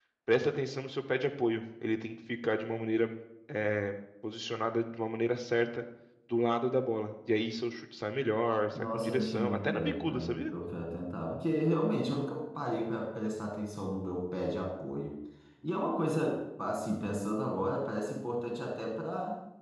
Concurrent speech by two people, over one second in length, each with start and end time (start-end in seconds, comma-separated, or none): 8.7-10.4